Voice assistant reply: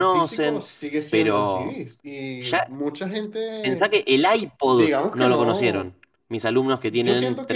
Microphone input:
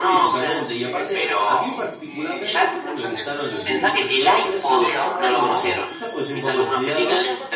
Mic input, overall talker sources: both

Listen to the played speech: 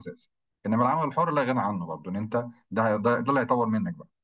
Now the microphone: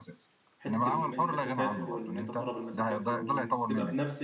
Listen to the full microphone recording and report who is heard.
both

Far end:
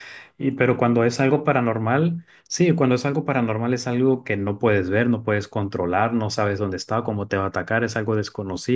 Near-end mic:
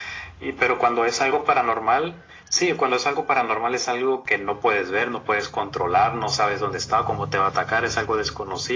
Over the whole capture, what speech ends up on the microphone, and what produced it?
echo only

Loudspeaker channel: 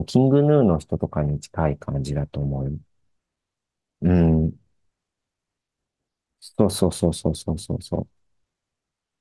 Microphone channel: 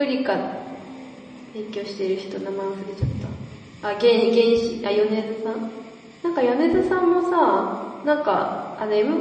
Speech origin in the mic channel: user only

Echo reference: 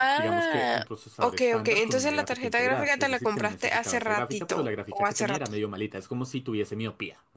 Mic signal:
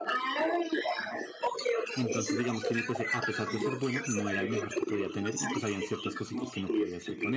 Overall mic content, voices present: both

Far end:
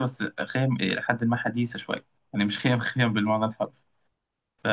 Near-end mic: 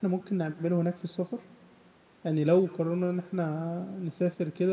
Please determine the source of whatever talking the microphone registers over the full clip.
user only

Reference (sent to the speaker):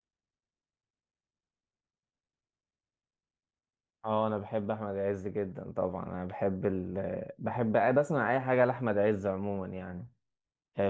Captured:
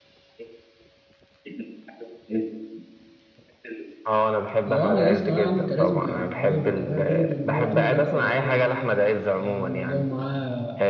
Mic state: both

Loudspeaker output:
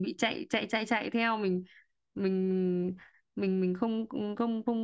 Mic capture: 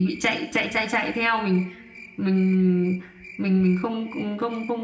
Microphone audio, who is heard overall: echo only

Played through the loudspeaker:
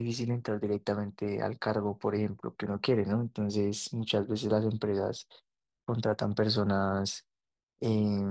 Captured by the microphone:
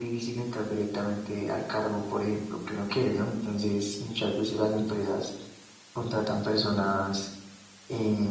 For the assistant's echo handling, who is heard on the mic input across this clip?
echo only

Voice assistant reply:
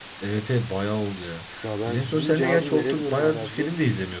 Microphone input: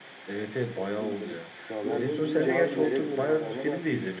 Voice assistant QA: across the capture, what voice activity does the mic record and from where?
both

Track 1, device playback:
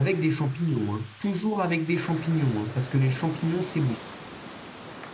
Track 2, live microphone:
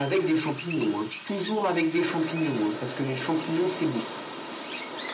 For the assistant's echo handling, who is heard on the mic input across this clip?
echo only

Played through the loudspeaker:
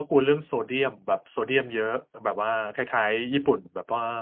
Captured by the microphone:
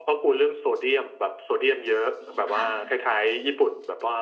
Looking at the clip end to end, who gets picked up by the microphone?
both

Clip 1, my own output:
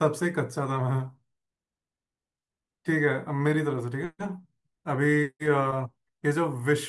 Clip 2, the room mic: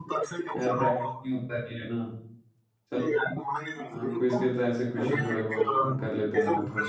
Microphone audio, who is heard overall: both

